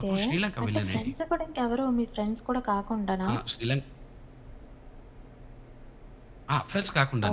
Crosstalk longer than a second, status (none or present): none